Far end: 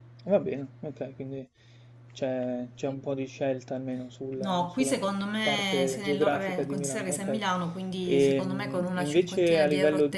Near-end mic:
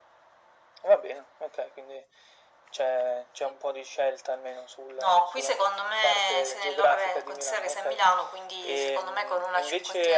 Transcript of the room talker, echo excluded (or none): none